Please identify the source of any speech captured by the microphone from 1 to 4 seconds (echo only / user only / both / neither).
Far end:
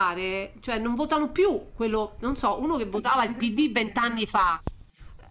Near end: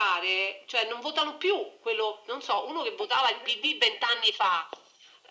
echo only